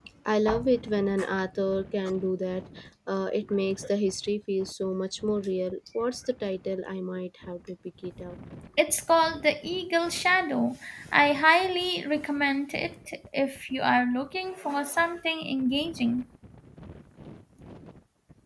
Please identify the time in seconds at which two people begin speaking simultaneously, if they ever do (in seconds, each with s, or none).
none